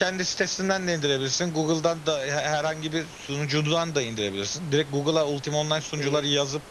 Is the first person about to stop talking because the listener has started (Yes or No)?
No